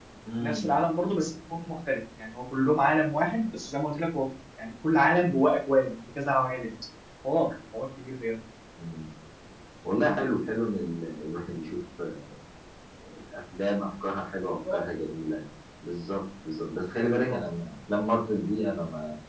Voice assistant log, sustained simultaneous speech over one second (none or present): none